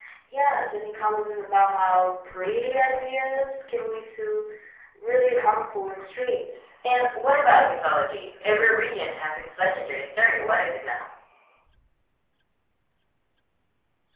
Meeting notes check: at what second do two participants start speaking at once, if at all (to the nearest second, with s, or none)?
none